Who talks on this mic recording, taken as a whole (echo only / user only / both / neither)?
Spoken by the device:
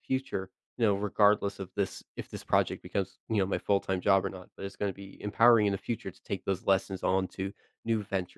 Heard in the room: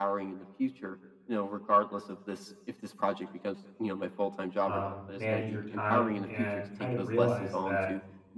both